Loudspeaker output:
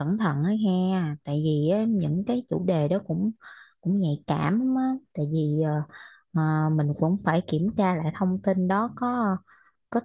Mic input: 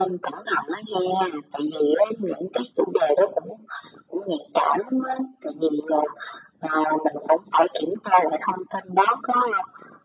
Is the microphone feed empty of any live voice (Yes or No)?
Yes